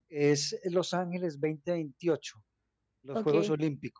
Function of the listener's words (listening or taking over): listening